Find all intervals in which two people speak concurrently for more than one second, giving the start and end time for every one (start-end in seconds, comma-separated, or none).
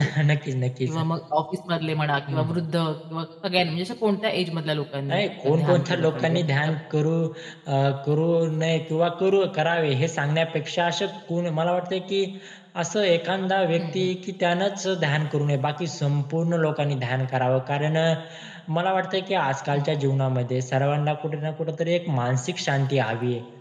5.1-6.8